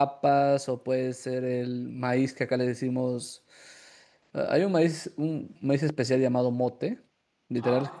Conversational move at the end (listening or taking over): listening